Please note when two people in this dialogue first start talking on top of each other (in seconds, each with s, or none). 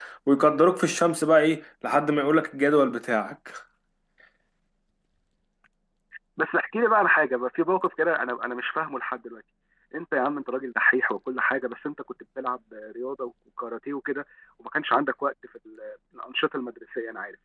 none